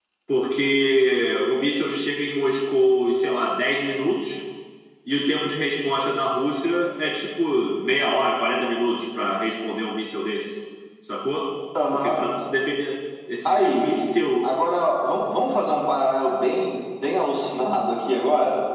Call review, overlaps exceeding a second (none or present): none